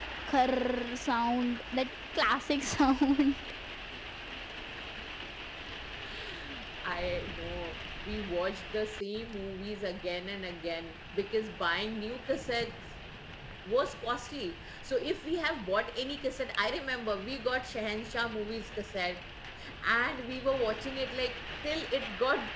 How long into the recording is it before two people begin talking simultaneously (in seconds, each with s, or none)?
none